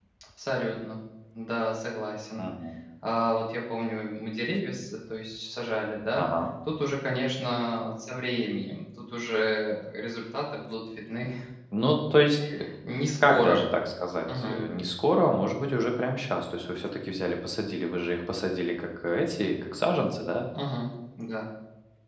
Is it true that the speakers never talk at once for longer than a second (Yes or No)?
Yes